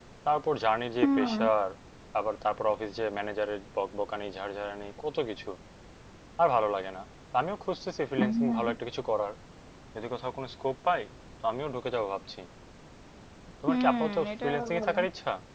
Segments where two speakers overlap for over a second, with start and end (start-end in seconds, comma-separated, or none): 13.7-15.0